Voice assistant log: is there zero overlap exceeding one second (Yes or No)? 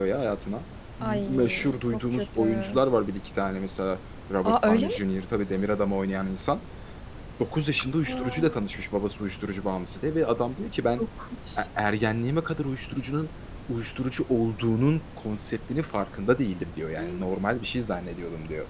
No